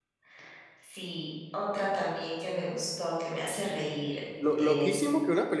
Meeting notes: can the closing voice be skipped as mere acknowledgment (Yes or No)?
No